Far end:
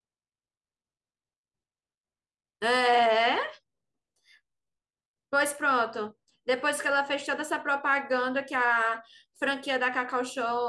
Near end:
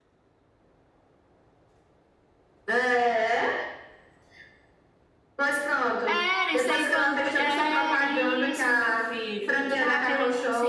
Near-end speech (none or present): present